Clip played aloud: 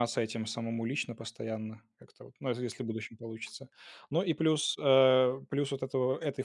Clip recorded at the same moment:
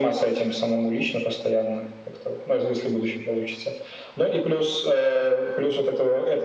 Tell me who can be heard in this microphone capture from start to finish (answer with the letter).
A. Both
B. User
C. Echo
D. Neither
C